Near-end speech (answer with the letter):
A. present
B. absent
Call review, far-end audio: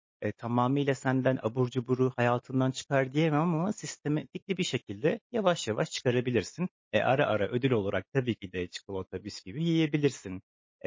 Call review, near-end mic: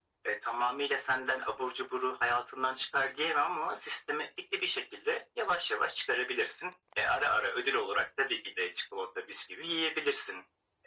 B